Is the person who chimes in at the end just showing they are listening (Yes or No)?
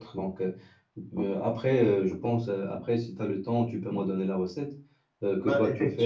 Yes